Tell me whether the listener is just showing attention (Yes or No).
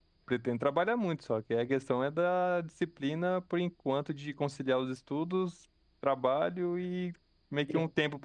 Yes